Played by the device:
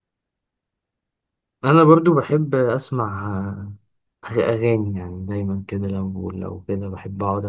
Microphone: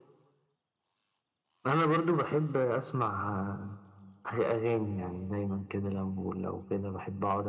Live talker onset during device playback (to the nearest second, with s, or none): none